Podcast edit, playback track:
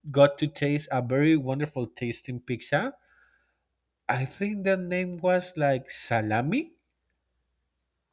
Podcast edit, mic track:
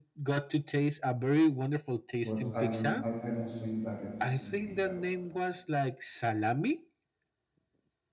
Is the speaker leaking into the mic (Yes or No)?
Yes